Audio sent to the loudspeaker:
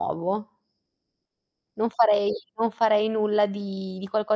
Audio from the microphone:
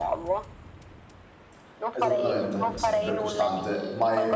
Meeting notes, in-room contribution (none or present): present